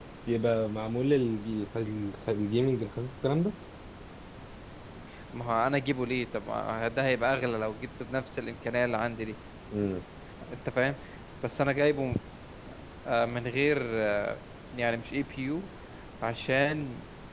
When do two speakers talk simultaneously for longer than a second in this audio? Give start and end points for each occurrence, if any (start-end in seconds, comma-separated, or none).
none